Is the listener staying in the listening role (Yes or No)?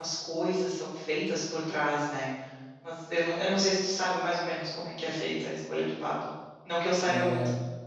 No